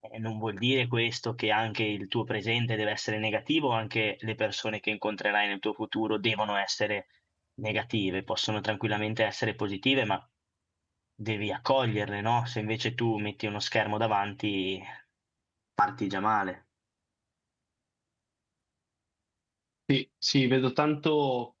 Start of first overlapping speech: none

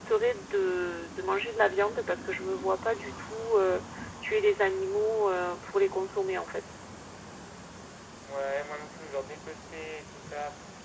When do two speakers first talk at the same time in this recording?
none

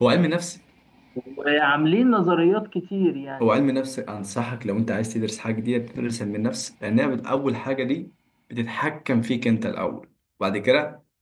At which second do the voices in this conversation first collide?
none

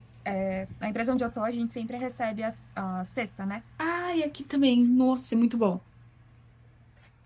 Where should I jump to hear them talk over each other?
none

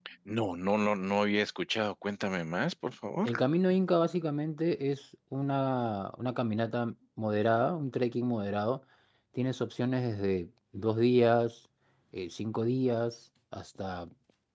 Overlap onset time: none

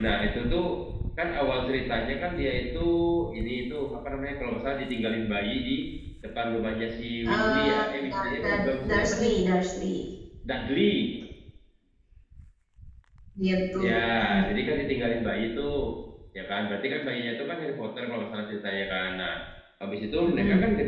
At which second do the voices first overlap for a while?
7 s

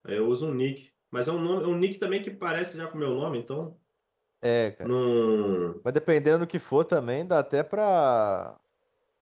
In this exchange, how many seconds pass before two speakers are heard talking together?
none

